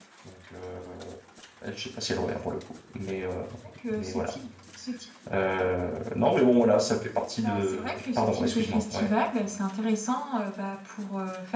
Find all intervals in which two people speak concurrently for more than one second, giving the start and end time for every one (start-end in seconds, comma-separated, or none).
7.4-9.1